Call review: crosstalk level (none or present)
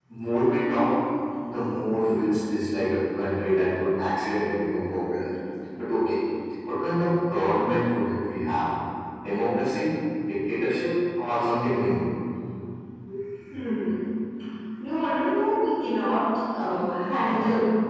none